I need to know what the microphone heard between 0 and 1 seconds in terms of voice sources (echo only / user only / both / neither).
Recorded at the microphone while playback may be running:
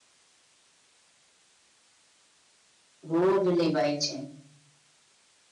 neither